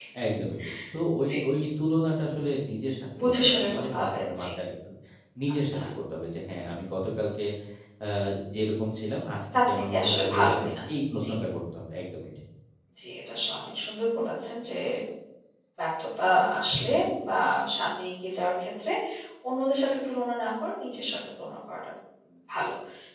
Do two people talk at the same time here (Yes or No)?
Yes